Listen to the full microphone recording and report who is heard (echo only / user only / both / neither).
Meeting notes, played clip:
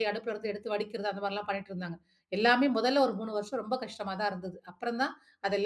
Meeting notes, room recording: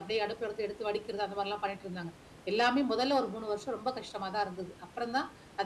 echo only